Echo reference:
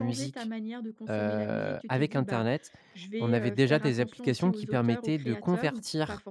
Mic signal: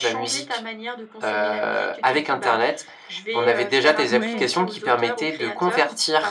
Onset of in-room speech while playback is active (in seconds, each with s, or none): 4.1 s